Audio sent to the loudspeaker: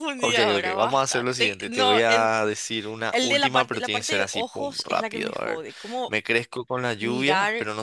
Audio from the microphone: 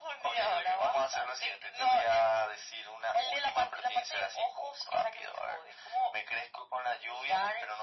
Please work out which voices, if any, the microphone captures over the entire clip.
echo only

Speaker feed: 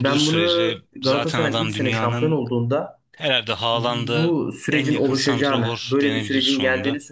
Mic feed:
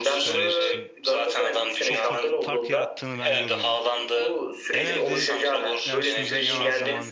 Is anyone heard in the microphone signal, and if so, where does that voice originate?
both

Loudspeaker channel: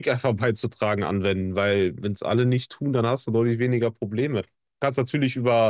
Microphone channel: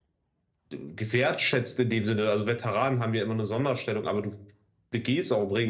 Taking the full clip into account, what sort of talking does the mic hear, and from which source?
user only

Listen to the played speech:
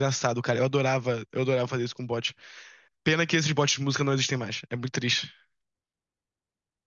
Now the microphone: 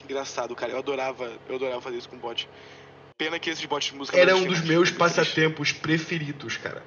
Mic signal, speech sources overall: both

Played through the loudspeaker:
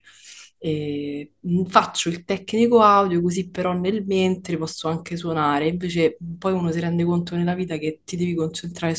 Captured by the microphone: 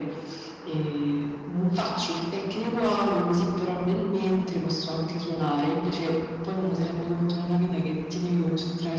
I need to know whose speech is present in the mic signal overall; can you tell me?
echo only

